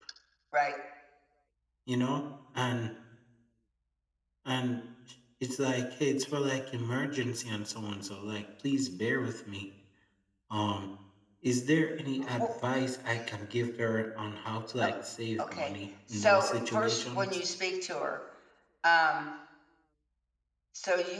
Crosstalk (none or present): present